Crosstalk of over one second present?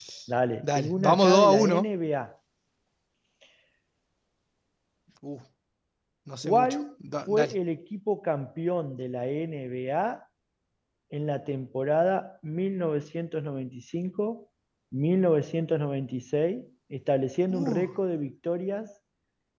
Yes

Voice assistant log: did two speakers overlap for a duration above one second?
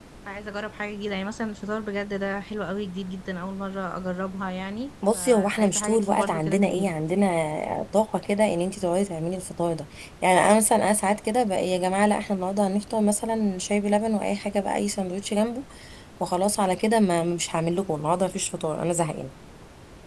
Yes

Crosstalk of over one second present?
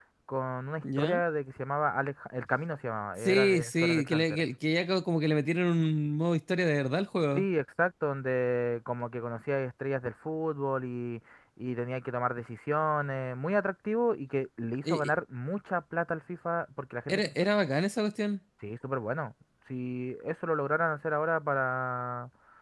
Yes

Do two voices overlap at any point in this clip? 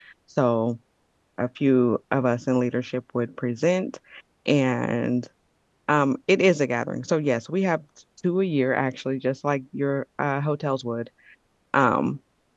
No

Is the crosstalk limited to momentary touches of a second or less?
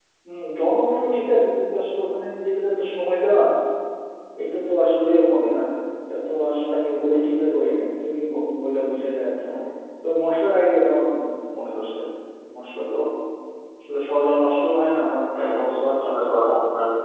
No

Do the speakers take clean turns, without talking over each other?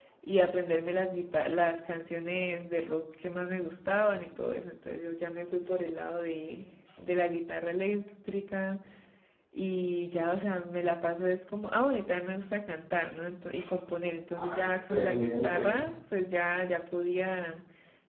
No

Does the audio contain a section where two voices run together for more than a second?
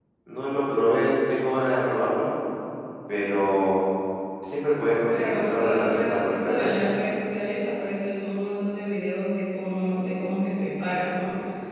Yes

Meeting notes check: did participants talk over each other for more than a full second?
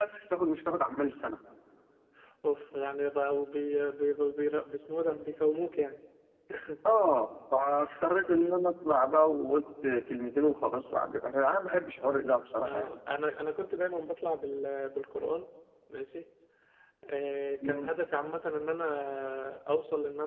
No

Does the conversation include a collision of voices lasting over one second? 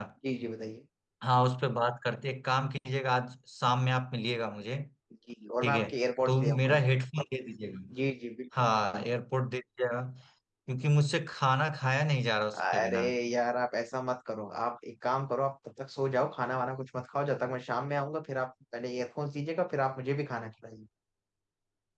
No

